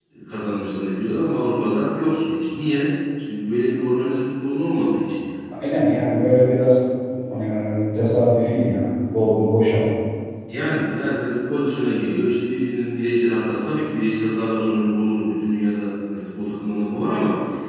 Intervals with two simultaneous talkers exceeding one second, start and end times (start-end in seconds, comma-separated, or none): none